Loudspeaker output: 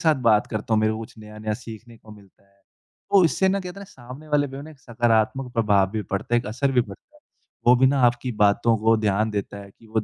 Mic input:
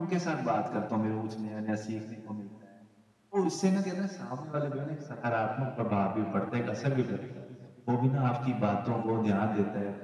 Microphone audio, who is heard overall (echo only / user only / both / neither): echo only